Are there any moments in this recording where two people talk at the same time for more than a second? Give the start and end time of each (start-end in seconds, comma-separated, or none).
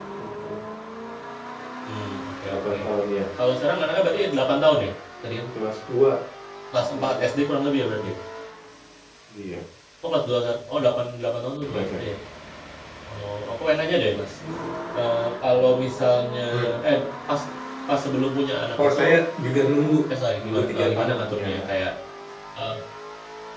20.4-21.7